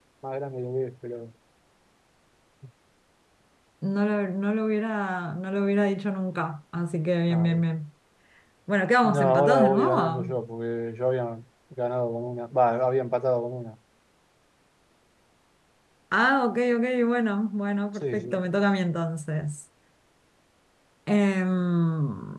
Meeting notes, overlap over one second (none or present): present